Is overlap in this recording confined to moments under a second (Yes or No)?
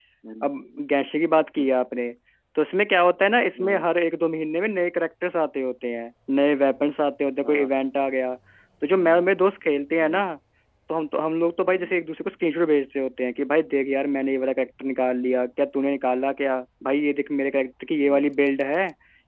Yes